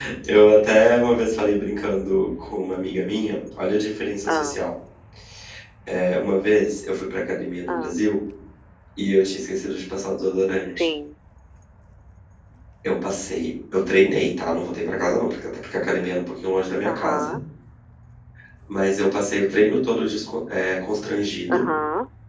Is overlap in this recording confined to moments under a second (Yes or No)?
Yes